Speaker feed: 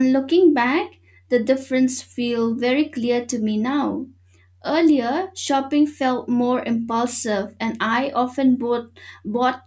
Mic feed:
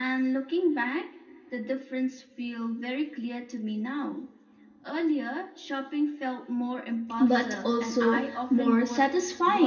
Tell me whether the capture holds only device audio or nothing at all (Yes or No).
No